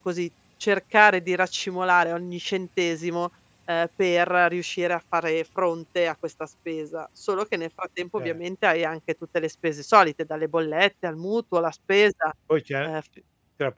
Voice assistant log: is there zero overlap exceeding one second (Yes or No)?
Yes